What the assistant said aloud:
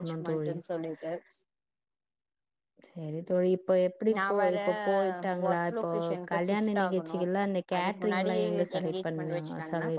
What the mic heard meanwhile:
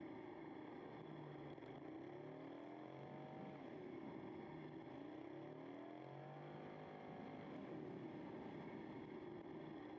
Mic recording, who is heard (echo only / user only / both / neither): neither